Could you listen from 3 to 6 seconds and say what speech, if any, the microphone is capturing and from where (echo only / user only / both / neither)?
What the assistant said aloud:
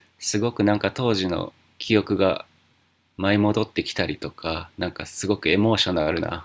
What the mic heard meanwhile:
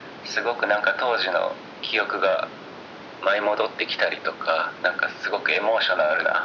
echo only